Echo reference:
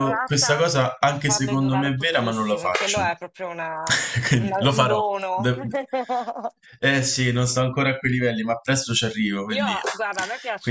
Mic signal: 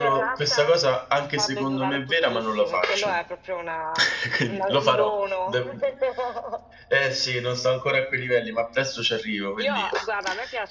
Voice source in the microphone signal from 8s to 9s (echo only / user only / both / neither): echo only